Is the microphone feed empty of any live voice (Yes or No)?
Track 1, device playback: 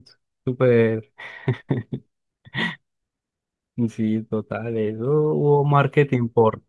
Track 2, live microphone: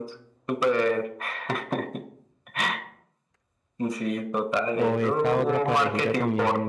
No